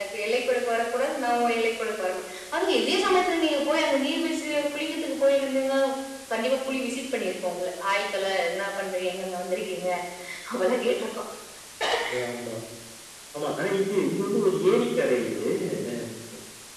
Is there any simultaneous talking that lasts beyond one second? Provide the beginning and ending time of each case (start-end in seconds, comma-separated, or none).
none